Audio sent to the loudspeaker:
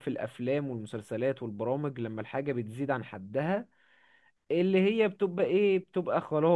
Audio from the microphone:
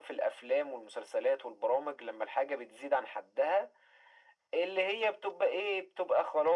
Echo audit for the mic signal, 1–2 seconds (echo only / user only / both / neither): echo only